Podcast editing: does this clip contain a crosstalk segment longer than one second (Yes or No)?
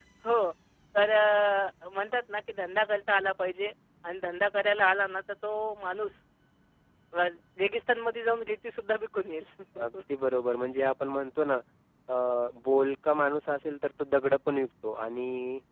No